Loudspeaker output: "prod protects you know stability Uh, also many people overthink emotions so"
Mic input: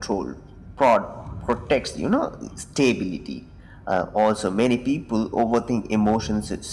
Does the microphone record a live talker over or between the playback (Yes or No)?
No